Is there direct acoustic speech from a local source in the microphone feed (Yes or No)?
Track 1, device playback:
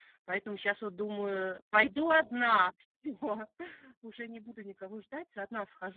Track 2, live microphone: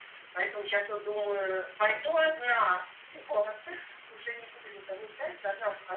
No